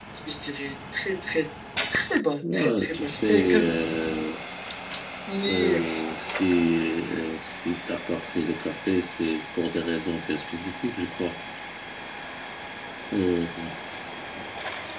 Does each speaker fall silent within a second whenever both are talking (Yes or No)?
No